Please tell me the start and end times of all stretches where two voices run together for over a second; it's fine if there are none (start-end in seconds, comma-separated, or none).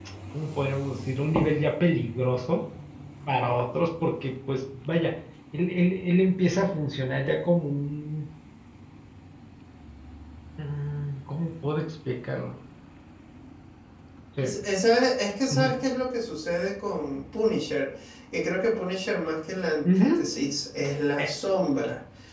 none